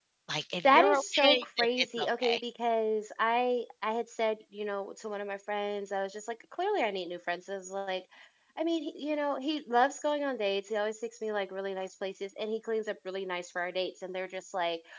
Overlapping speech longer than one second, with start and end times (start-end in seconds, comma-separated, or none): 0.6-2.4